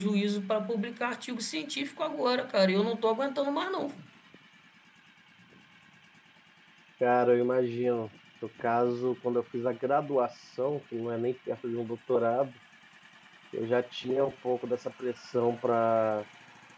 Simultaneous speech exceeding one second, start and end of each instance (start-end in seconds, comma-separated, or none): none